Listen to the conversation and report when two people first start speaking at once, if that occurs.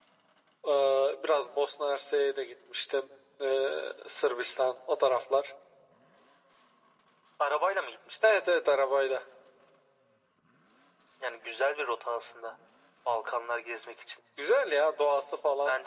none

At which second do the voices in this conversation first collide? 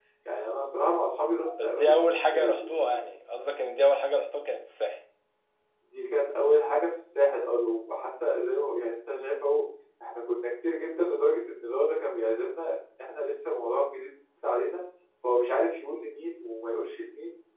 1.6 s

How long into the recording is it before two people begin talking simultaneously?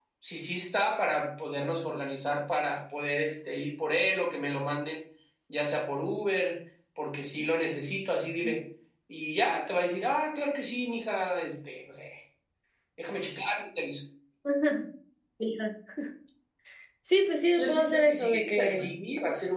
17.6 s

